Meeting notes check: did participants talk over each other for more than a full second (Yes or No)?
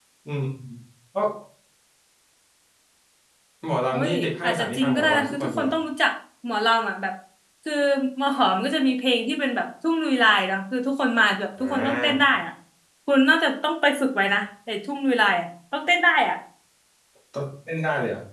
Yes